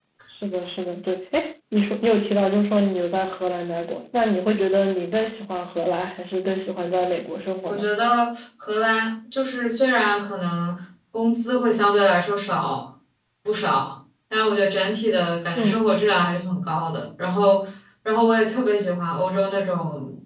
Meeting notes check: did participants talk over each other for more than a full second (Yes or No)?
No